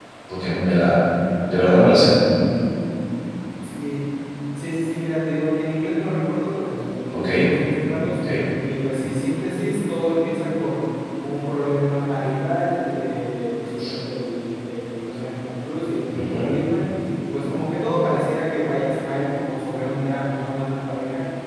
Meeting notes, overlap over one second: none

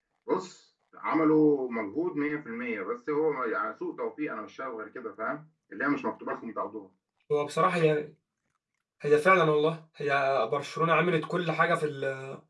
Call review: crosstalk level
none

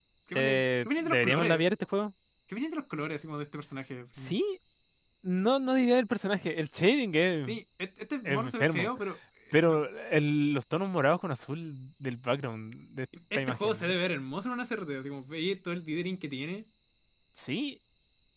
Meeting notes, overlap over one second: present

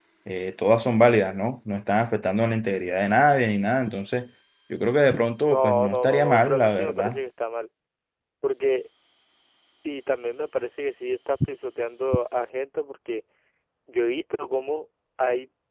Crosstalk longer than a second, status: present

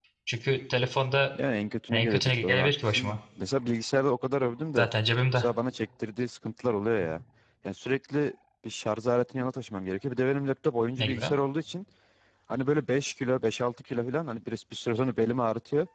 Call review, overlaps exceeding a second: present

